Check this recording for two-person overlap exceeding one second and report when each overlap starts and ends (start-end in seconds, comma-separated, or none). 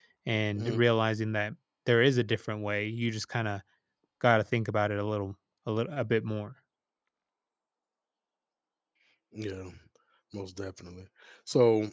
none